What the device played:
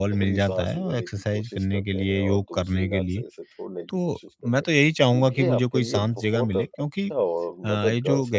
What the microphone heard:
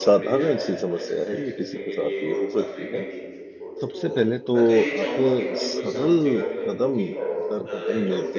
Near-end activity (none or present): present